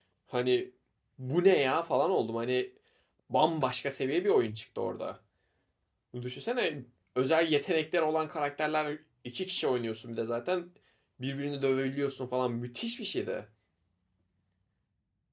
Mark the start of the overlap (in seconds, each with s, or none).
none